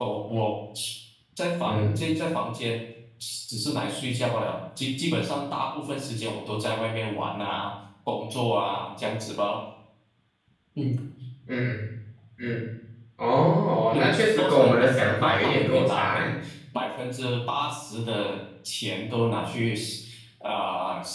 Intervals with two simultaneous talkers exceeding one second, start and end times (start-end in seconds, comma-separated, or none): 13.9-16.3